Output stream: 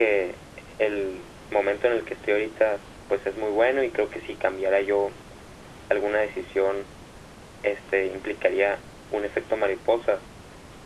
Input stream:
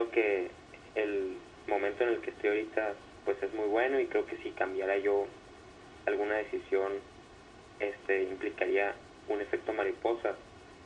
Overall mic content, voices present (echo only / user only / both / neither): echo only